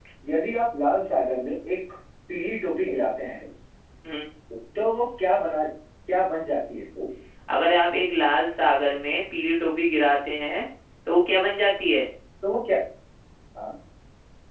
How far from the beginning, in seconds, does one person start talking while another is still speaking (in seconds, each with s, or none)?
none